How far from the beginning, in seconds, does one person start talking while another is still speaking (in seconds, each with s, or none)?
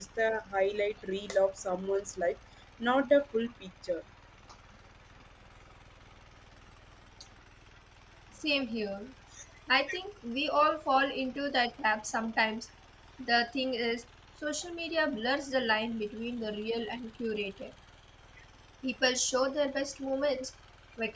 none